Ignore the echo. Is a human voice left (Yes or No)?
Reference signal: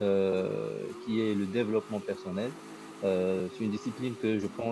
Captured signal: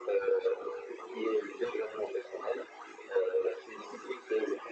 No